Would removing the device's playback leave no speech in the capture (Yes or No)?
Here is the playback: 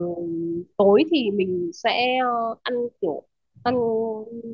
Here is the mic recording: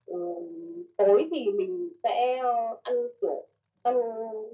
Yes